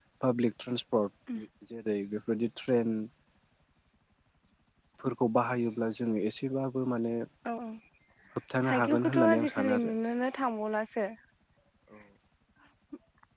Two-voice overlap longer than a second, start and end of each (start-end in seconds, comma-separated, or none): 8.7-9.9